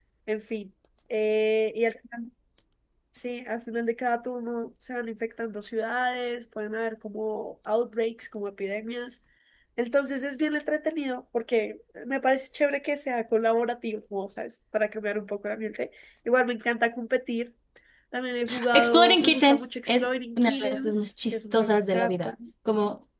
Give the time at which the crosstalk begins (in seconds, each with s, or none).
18.7 s